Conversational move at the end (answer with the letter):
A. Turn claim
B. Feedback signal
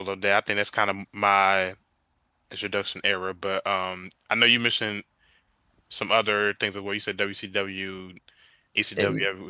B